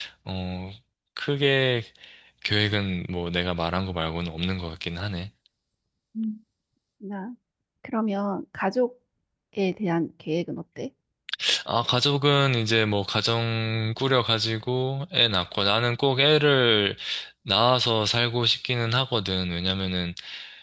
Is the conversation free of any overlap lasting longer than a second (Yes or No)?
Yes